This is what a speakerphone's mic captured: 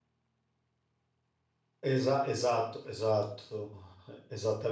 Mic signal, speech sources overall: user only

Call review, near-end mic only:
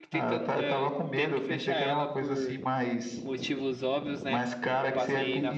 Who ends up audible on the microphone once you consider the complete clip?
both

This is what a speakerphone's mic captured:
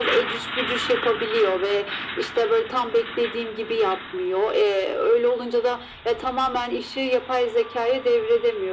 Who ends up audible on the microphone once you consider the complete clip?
echo only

